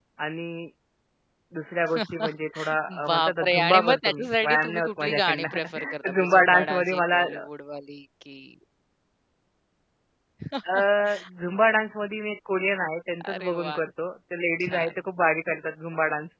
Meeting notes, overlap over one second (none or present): present